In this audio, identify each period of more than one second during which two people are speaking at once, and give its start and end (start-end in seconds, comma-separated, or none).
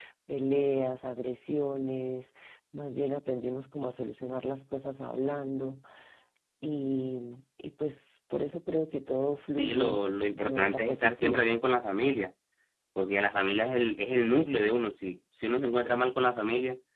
9.6-11.5